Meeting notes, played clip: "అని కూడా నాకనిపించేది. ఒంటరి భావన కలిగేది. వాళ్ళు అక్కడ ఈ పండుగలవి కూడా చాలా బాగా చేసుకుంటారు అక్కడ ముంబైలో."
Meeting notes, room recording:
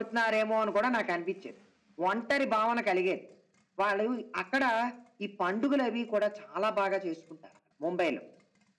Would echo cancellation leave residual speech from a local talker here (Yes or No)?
No